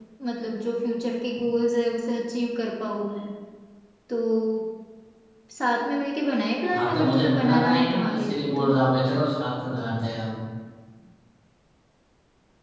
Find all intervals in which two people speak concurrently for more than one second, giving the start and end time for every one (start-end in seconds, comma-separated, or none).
6.7-8.7